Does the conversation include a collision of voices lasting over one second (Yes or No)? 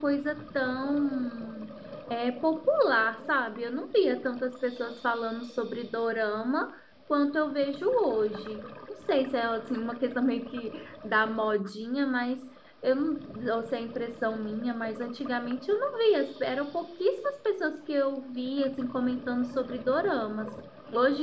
No